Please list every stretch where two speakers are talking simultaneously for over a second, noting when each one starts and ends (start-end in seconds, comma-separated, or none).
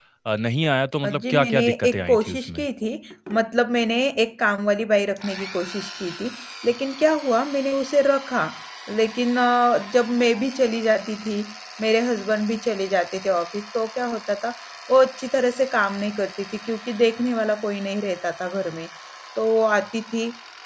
1.0-2.7